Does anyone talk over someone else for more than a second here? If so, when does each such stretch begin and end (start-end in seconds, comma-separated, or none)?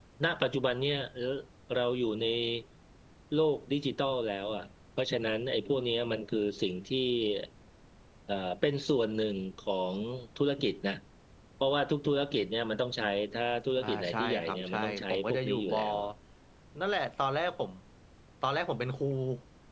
13.8-15.8